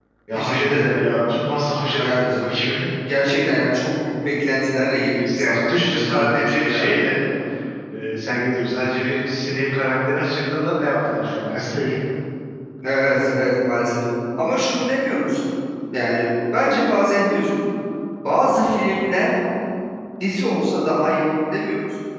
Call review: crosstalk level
present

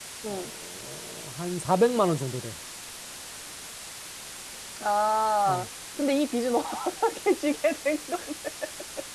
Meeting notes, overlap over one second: none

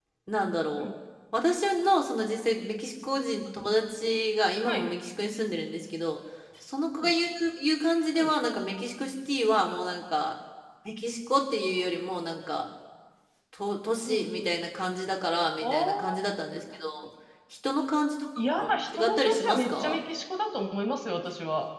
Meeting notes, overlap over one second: present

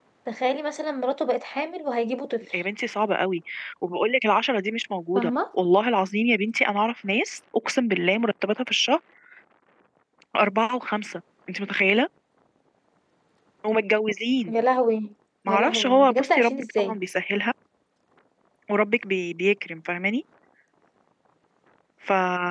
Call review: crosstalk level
present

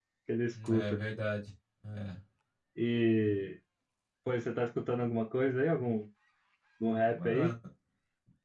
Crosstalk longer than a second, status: none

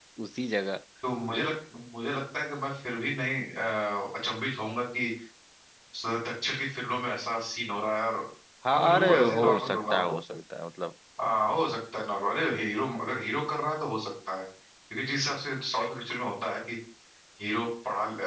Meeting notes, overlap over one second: present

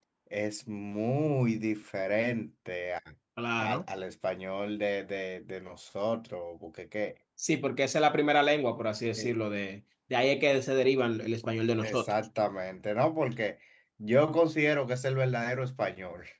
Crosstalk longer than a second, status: none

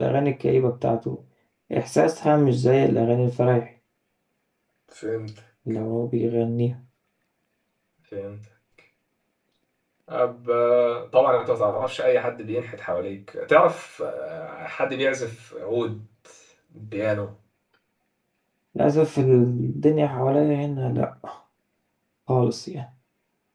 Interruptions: none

